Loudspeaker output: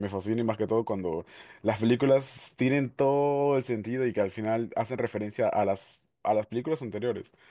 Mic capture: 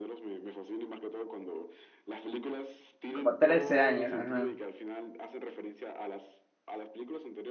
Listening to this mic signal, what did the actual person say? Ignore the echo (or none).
Como trece años, ajá.